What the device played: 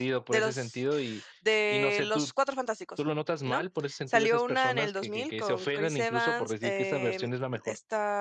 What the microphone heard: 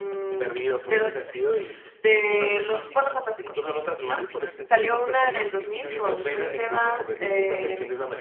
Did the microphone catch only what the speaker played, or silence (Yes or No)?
No